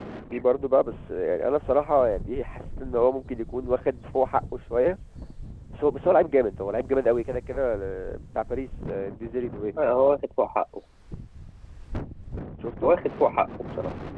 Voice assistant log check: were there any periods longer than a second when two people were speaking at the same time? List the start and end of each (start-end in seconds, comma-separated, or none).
none